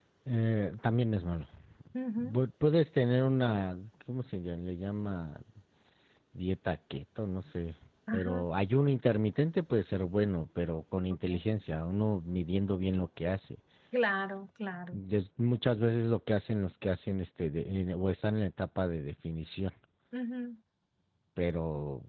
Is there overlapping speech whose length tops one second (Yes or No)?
No